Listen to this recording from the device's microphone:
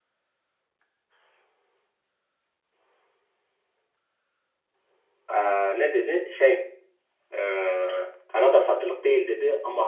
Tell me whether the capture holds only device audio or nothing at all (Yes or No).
No